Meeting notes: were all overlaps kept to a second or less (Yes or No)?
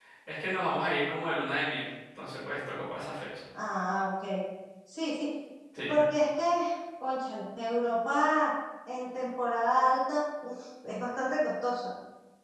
Yes